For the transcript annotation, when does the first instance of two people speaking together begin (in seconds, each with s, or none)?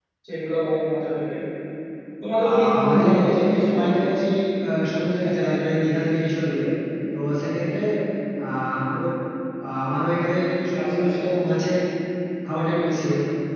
2.5 s